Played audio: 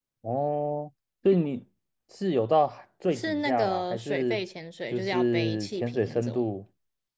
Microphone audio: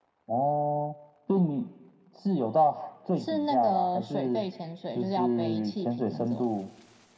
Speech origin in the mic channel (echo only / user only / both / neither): echo only